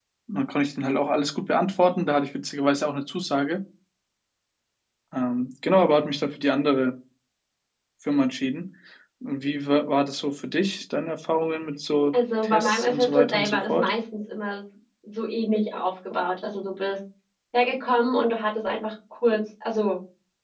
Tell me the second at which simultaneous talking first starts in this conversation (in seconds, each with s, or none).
12.1 s